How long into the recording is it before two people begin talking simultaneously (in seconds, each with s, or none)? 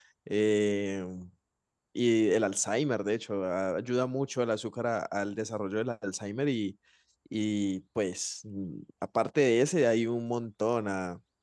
none